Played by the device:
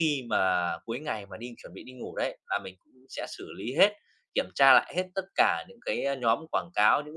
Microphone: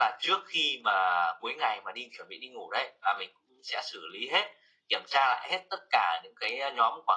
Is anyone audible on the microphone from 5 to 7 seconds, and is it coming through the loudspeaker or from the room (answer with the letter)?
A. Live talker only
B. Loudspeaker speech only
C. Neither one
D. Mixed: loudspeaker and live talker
B